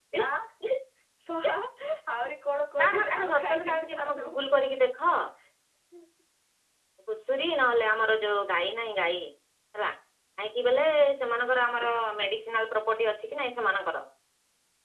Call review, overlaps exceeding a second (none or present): present